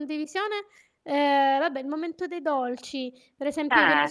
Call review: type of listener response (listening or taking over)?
listening